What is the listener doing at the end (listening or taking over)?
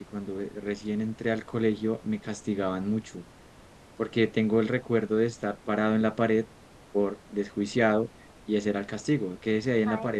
taking over